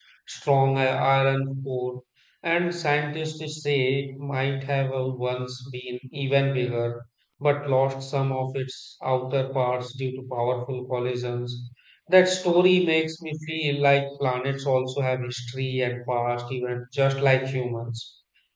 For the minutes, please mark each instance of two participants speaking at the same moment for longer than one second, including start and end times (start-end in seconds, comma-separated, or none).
none